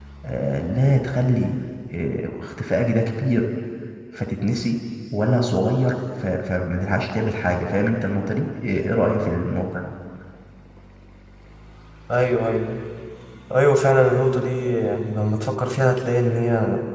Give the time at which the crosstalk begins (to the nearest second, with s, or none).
none